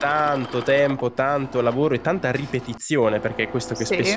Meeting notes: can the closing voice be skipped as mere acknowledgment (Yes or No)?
Yes